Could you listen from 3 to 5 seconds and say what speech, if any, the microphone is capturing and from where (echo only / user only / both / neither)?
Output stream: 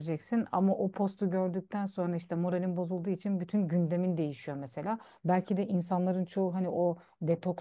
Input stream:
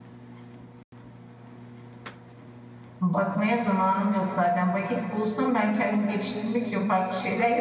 user only